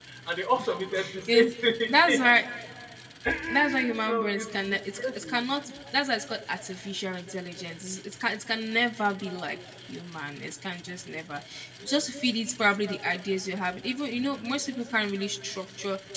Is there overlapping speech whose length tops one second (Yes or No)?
Yes